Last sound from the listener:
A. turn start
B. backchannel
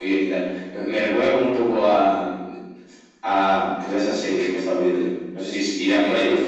A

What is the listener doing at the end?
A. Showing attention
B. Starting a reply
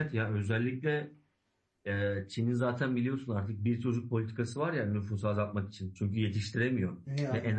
A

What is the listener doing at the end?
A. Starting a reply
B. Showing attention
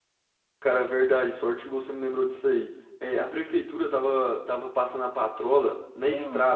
B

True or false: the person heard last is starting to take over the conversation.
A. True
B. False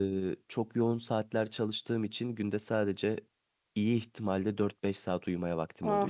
A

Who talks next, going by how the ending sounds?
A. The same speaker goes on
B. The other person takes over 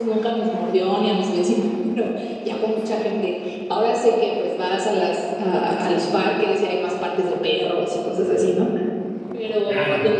A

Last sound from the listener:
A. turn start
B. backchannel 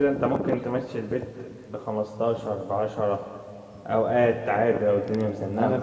A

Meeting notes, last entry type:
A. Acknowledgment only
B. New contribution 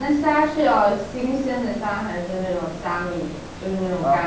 B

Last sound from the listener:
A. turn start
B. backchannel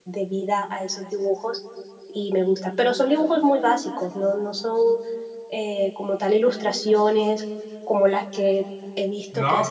A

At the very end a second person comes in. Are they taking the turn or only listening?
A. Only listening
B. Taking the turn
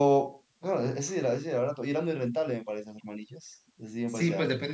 B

